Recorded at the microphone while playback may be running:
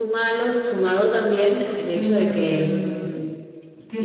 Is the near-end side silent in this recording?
No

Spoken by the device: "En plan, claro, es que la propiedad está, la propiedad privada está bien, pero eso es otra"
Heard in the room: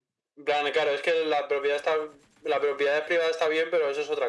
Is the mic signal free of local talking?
Yes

